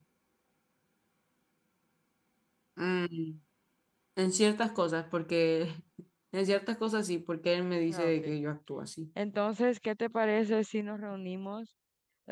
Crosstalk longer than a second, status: none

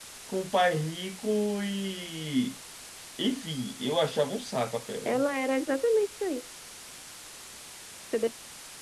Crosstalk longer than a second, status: none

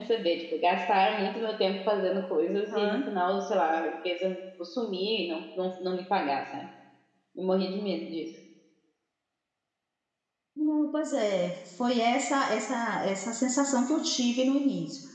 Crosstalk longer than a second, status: none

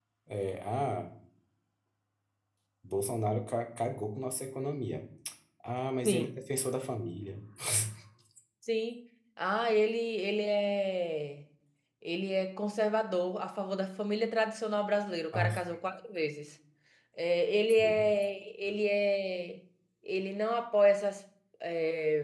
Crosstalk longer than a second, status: none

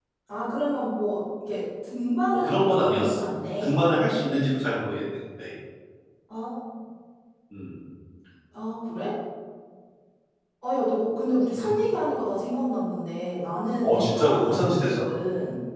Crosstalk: present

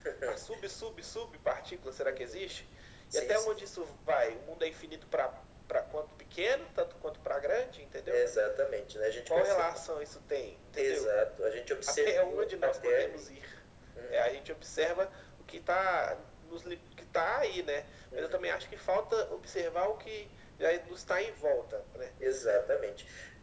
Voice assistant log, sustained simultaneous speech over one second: present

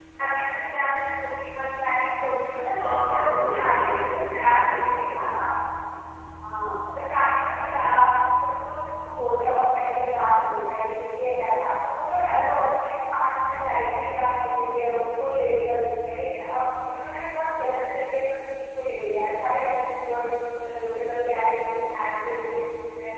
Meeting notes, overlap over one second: present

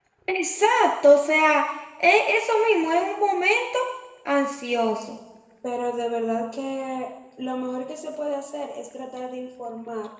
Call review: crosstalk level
none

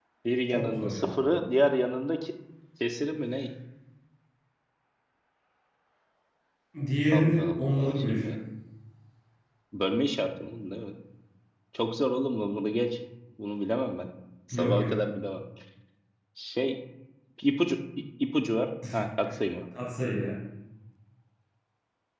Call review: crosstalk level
present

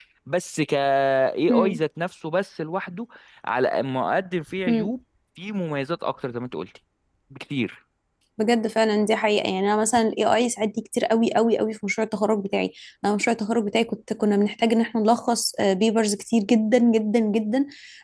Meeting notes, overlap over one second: none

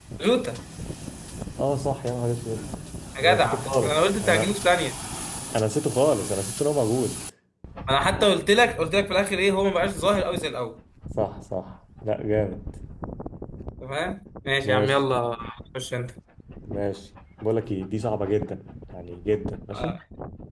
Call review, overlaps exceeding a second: present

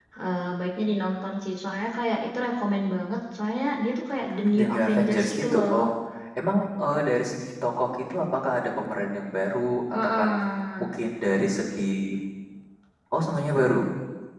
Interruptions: present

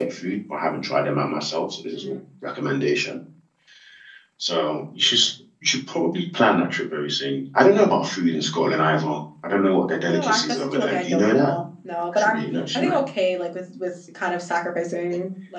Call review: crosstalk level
present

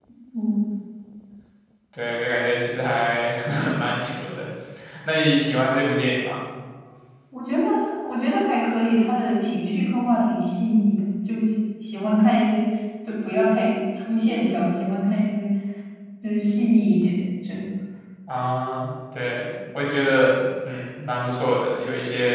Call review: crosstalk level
none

